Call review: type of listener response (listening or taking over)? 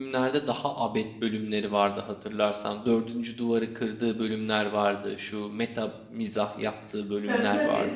taking over